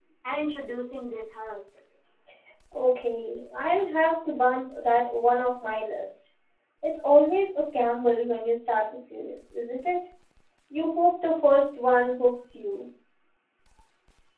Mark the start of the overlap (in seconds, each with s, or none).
none